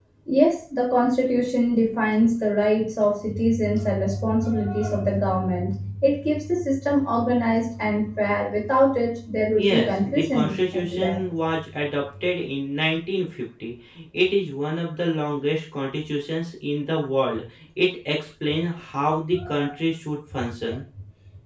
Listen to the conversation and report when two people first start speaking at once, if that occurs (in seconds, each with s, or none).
9.5 s